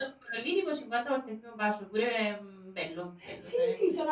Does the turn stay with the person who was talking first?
No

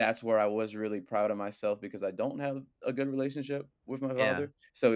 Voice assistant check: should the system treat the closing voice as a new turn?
No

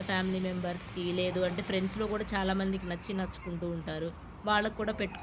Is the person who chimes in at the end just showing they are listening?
Yes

